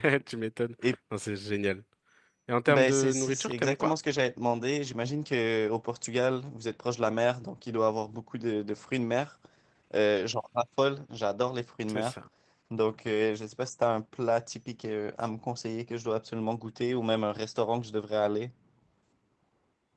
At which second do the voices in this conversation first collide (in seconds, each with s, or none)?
2.7 s